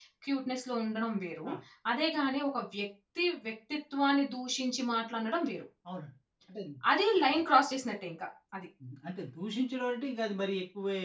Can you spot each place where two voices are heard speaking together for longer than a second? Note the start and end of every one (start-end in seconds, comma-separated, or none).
none